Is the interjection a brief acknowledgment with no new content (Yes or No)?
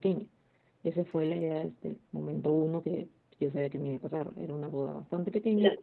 Yes